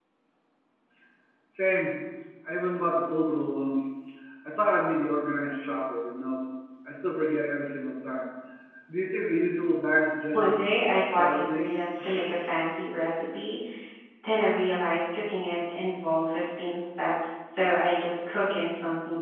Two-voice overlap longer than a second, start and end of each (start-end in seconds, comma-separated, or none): 10.3-11.6